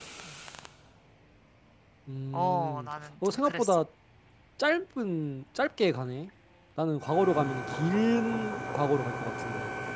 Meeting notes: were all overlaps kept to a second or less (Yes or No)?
No